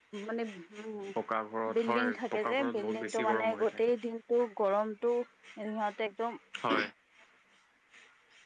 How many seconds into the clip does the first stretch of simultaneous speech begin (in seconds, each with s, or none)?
1.8 s